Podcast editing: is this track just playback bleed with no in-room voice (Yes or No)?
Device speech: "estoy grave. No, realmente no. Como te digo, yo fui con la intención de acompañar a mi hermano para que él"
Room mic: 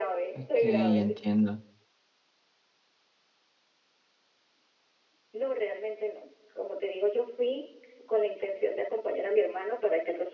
No